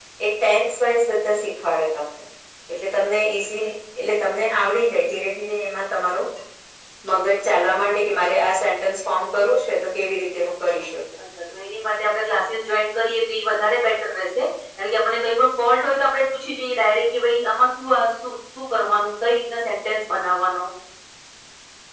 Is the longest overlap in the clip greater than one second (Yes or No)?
No